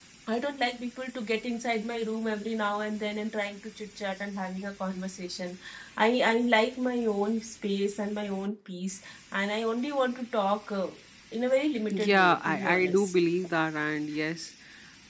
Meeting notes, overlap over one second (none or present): present